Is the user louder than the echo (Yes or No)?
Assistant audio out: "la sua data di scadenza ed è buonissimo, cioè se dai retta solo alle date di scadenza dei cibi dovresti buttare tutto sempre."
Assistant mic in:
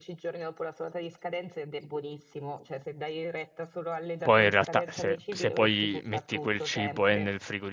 Yes